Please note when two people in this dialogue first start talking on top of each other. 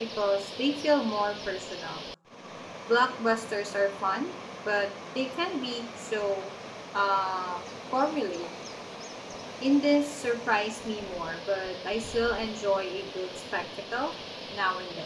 none

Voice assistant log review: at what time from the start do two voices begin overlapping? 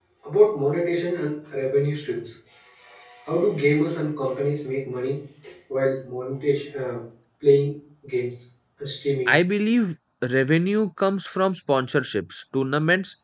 none

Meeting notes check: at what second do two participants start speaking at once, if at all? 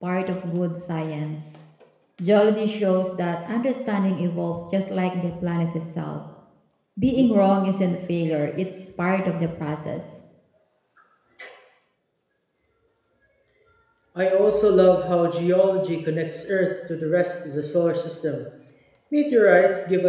none

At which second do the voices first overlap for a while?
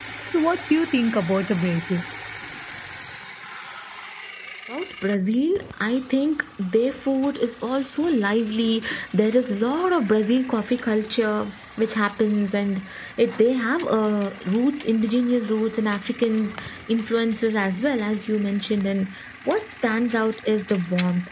none

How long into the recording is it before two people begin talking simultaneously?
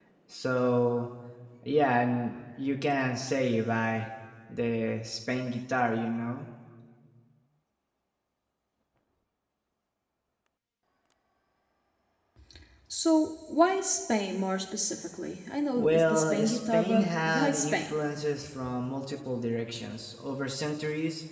16 s

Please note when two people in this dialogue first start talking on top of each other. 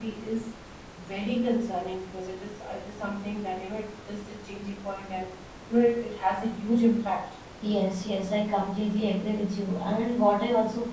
none

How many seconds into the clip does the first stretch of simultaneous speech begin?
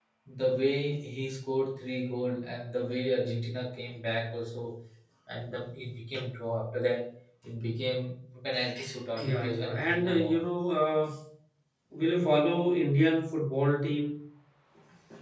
9 s

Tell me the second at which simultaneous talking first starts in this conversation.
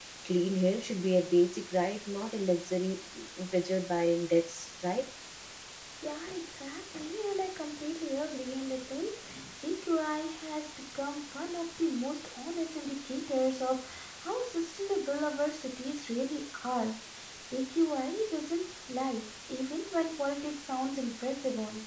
none

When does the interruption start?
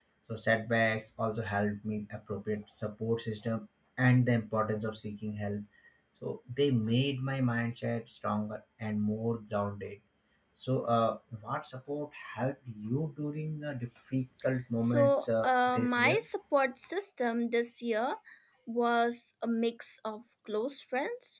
15 s

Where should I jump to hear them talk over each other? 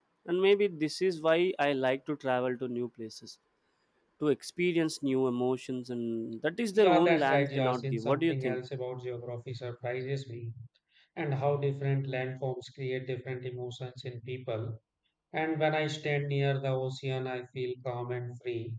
7 s

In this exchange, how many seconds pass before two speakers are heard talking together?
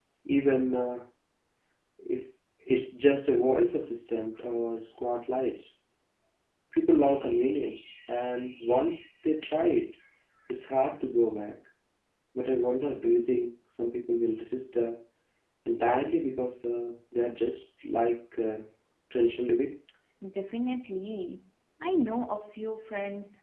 none

